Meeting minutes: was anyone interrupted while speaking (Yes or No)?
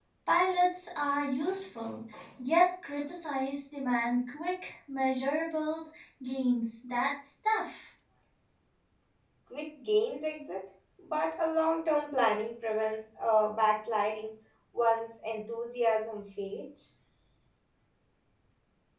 No